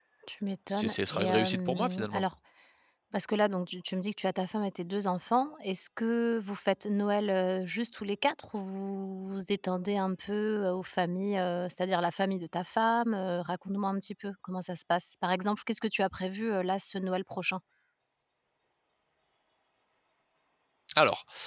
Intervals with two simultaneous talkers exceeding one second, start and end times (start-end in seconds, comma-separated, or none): 0.7-2.2